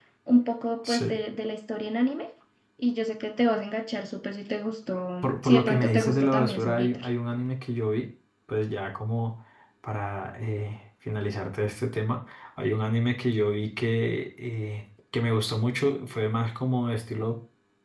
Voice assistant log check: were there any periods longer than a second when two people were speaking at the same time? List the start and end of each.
5.2-7.1

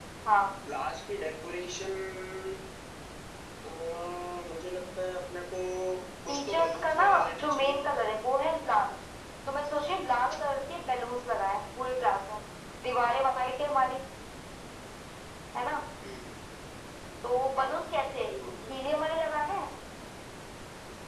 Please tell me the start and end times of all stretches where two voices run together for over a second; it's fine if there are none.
6.3-7.8

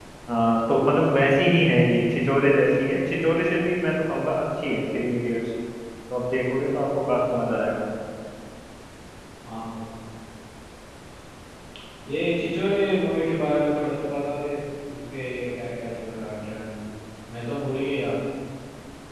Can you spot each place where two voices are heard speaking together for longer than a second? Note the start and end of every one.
none

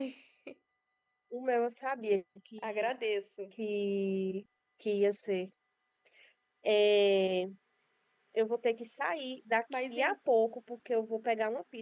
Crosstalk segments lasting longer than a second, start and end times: none

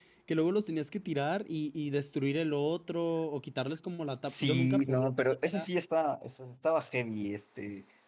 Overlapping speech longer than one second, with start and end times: 4.3-5.6

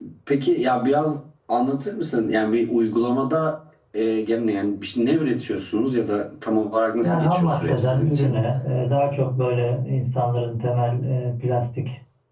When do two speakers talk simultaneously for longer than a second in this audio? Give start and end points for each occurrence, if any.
7.0-8.4

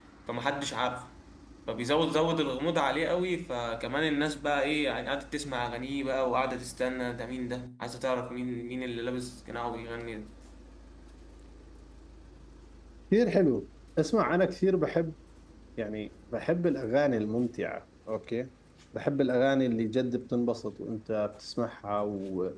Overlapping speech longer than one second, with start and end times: none

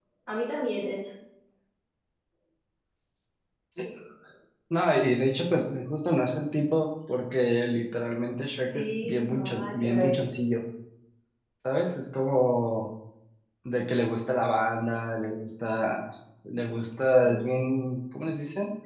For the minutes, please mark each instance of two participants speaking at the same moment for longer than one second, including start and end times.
8.7-10.2

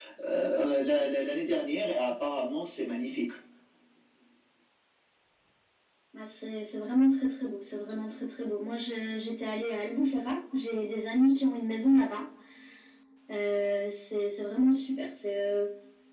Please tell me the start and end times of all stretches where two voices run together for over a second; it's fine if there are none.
none

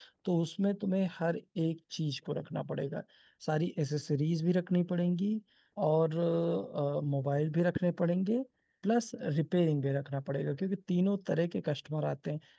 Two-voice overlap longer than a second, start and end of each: none

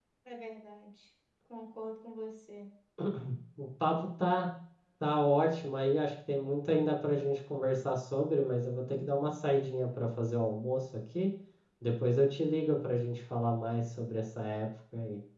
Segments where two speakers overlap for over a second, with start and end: none

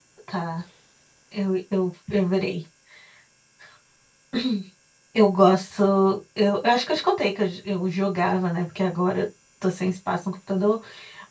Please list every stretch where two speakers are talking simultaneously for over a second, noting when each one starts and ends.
none

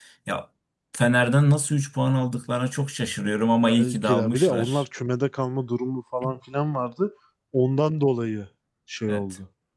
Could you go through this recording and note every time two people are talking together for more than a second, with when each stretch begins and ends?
3.6-4.8

